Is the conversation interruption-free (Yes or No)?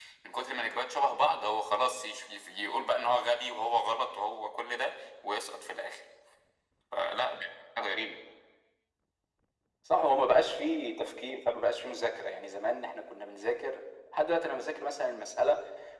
Yes